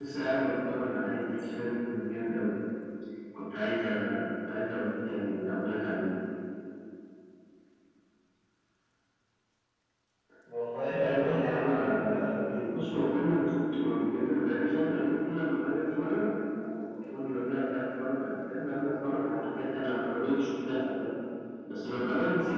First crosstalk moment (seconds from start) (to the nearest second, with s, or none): 11 s